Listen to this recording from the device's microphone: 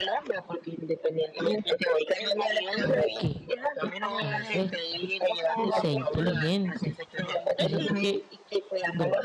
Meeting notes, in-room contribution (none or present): present